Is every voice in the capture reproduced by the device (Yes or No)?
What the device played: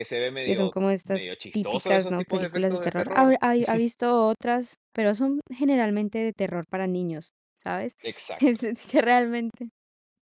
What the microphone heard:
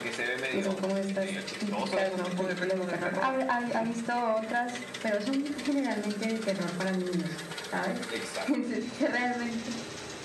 Yes